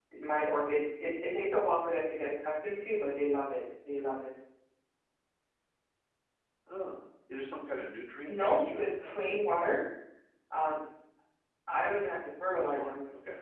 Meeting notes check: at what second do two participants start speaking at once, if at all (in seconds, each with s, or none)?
8.3 s